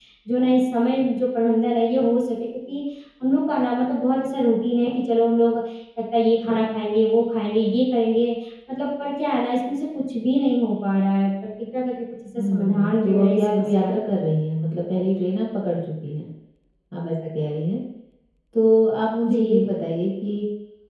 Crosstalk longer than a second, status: present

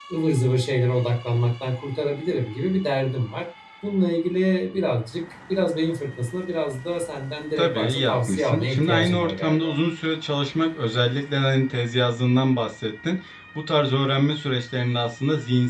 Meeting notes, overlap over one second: present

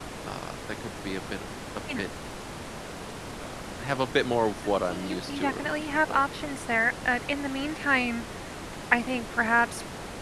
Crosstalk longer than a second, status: present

